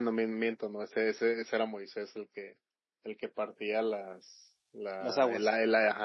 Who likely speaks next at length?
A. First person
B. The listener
A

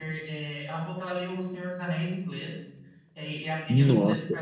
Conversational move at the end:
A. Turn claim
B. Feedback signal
B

